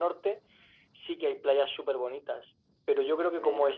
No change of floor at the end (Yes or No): Yes